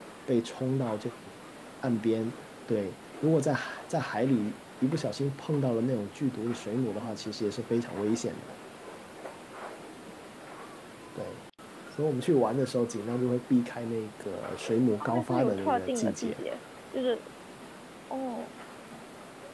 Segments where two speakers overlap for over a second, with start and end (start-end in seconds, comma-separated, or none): 15.0-16.4